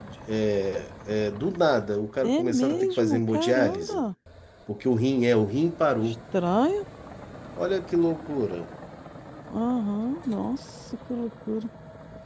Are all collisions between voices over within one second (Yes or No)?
No